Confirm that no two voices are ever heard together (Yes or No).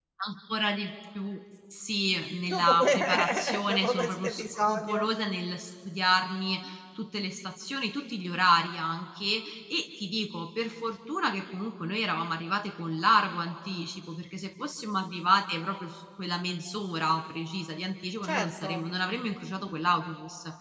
No